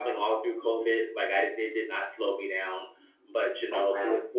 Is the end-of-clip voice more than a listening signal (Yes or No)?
No